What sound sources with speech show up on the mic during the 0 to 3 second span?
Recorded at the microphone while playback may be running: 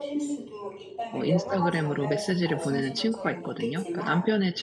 both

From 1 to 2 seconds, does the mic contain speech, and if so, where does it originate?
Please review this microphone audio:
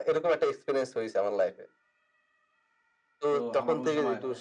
echo only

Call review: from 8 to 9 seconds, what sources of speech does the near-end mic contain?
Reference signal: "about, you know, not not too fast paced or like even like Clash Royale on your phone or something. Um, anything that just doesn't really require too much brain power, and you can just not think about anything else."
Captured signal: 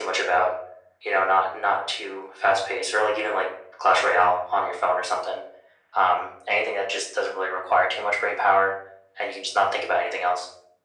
echo only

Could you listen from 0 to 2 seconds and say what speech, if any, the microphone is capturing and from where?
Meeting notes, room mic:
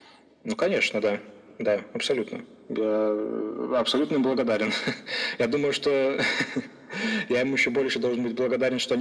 echo only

